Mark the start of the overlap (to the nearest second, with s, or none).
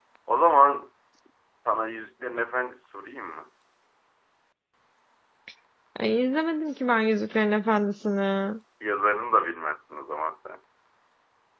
none